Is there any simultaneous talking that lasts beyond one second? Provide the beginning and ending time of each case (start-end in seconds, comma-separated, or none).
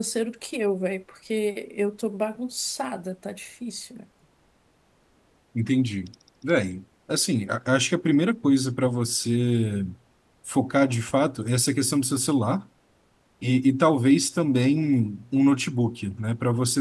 none